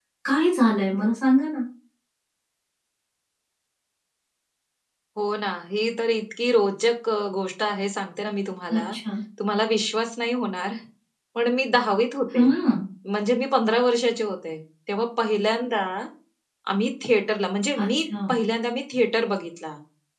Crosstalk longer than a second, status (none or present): none